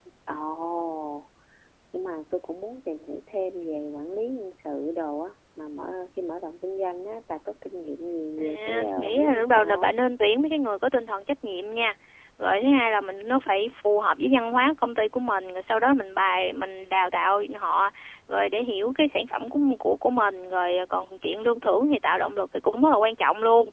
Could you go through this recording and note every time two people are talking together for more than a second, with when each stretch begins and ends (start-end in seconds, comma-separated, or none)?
8.4-9.9